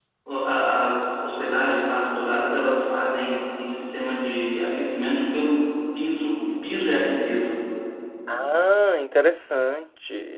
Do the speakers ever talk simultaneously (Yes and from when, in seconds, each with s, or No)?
No